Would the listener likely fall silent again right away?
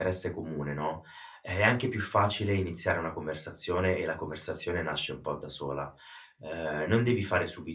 Yes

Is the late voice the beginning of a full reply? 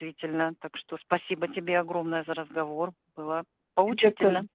Yes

